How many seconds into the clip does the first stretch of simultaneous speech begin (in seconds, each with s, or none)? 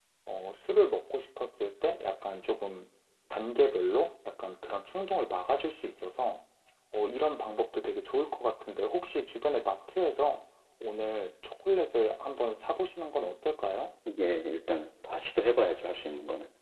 none